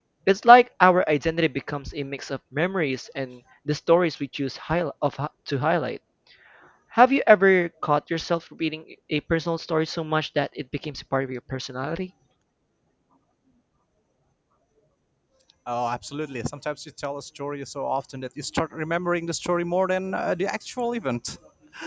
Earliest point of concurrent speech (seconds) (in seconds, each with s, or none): none